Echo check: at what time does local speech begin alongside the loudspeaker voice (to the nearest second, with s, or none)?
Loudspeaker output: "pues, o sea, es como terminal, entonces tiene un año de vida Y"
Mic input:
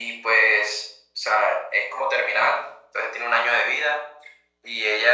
none